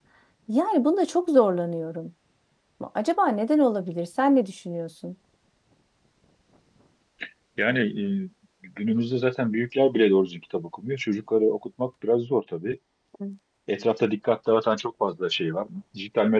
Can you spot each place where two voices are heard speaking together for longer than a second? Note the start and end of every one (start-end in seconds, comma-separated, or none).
none